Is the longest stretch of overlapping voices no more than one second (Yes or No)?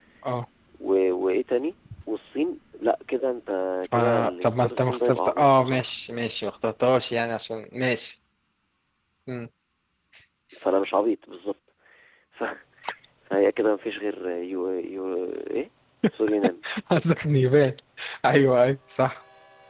No